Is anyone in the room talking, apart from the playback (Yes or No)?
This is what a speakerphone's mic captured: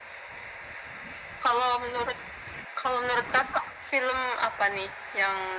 No